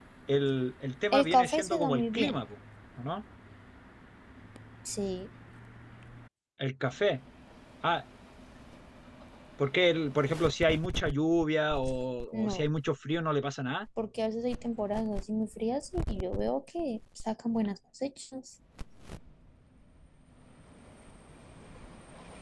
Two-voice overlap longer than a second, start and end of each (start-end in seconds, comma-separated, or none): 1.1-2.4